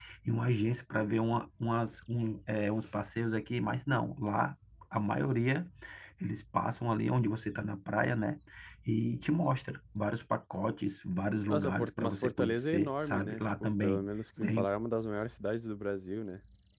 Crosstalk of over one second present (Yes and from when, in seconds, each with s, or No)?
Yes, from 11.5 s